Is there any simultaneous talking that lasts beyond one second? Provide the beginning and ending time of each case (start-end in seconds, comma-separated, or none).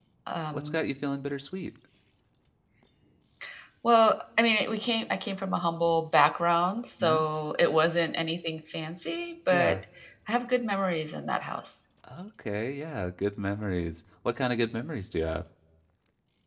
none